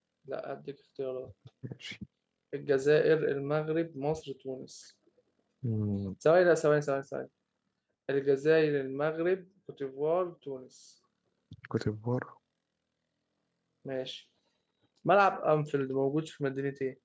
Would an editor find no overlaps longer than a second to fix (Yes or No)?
Yes